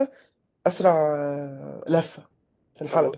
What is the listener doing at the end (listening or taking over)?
taking over